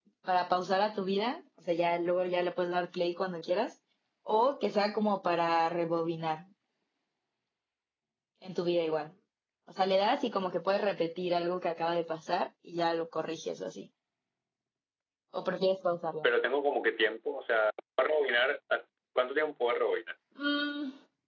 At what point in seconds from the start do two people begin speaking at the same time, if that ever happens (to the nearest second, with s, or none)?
none